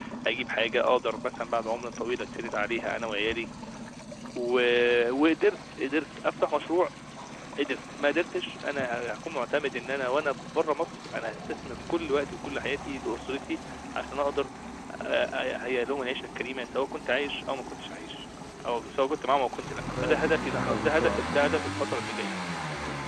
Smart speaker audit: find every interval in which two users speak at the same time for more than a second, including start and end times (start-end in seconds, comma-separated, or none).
20.0-21.4